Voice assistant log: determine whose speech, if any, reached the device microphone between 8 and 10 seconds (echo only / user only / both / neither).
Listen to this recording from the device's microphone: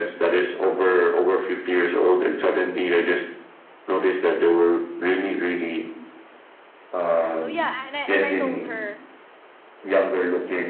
both